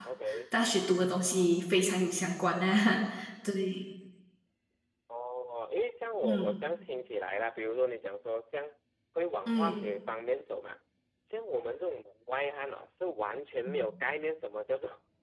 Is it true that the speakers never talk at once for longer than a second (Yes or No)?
Yes